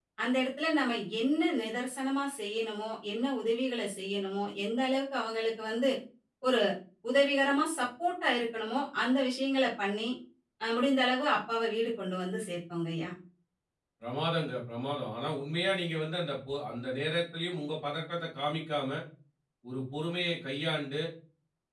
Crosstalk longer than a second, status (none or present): none